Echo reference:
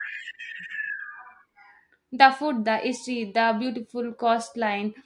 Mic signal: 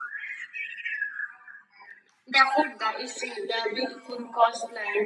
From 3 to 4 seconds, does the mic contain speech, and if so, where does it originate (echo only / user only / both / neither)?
echo only